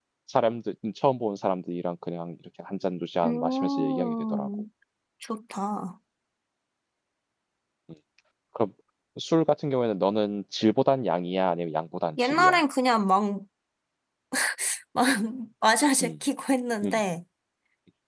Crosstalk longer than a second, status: present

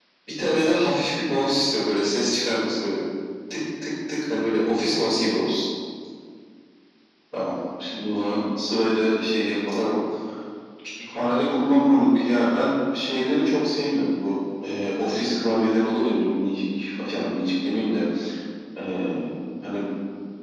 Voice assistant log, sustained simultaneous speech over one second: none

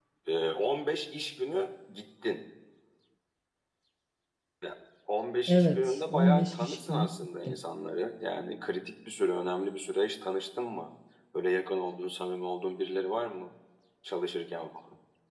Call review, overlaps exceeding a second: present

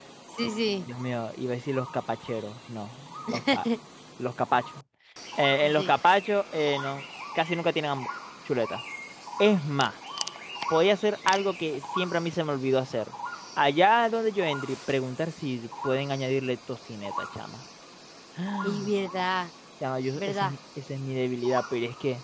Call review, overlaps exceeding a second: none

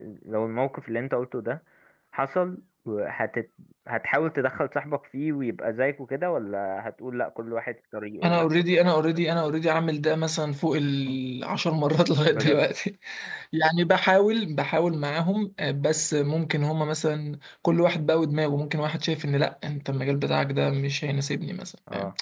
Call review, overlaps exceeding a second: none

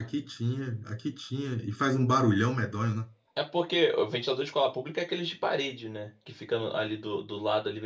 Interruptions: none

